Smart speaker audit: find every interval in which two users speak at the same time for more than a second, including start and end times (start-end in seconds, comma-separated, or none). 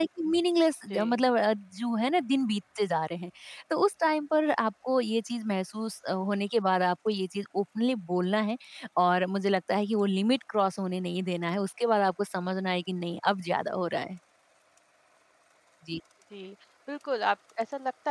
none